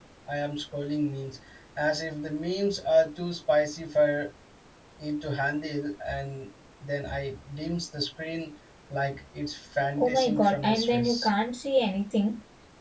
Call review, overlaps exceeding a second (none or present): present